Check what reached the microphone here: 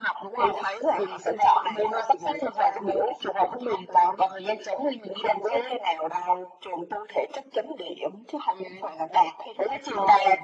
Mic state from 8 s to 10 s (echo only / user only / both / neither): echo only